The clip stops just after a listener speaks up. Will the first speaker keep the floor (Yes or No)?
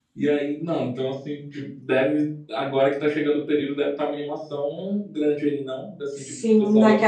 No